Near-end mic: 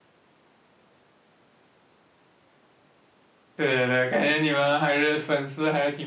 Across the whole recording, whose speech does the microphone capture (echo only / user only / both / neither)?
user only